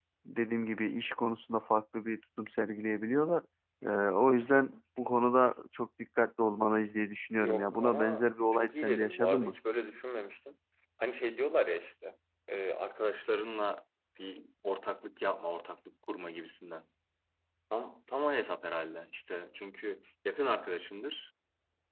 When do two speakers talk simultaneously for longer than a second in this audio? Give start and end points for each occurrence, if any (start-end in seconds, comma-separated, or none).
7.4-9.6